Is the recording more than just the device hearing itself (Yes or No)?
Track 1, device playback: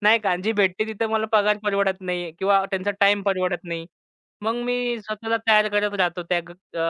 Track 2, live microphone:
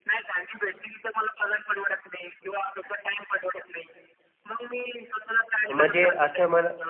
Yes